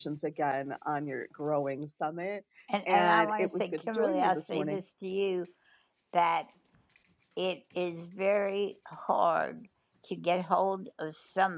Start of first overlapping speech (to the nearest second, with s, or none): 3 s